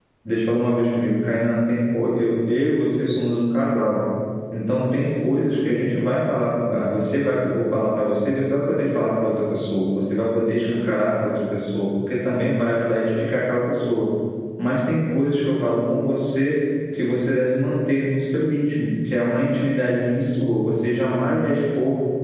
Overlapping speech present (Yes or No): No